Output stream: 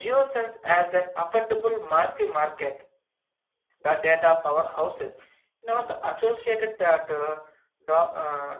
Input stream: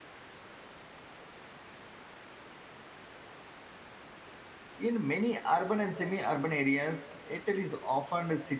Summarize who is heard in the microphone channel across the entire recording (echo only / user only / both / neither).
user only